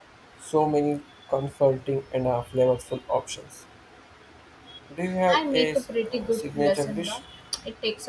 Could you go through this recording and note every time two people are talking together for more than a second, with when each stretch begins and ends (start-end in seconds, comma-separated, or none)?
5.3-7.2